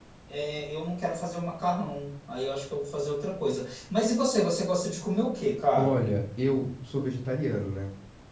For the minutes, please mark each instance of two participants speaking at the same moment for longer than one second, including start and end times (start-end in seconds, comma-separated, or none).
none